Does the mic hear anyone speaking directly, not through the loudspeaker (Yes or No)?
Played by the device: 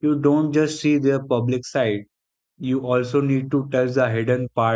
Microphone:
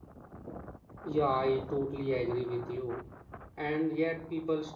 Yes